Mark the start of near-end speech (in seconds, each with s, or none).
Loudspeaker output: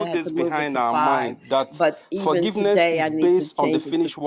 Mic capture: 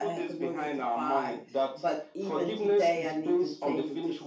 none